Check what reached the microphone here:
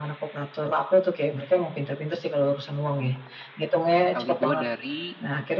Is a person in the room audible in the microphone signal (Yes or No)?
Yes